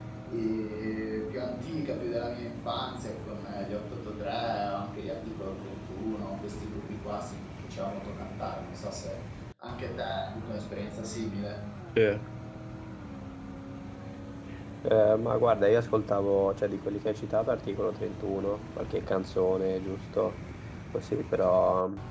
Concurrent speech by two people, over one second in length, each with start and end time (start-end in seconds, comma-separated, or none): none